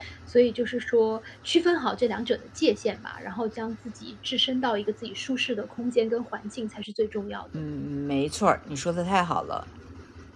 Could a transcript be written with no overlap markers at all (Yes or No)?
Yes